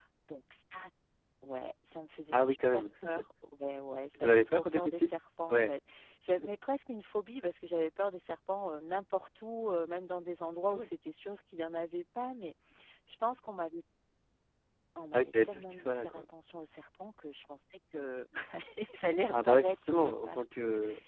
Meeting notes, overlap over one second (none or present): present